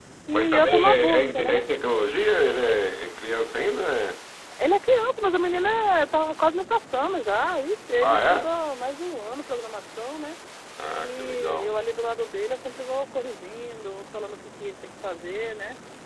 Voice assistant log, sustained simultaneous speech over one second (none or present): present